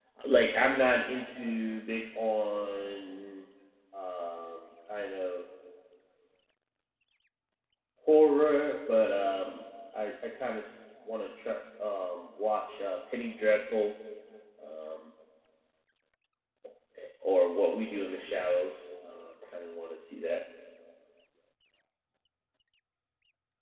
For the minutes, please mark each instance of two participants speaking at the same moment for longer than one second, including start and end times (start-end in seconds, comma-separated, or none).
none